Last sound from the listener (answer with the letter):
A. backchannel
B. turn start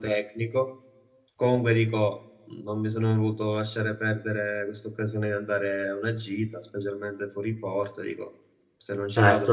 B